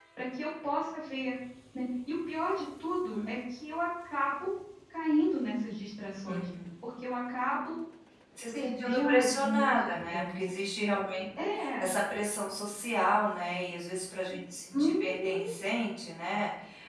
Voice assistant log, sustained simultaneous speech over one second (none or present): present